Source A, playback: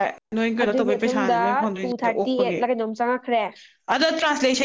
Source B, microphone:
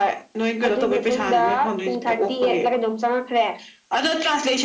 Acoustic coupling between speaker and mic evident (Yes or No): Yes